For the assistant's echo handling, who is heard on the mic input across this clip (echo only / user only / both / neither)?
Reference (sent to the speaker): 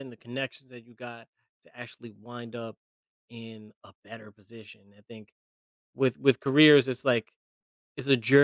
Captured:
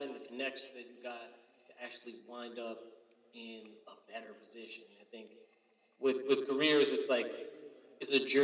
echo only